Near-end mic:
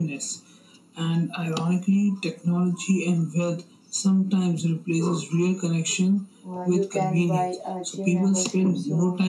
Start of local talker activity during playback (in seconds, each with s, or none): 6.5 s